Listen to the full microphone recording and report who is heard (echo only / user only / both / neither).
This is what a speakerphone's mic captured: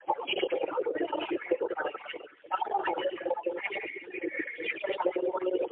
echo only